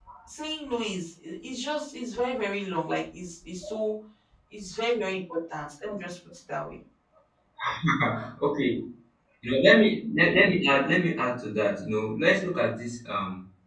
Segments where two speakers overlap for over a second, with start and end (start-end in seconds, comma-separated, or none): none